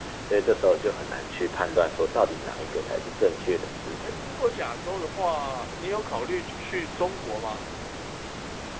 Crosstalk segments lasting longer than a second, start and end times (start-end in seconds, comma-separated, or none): none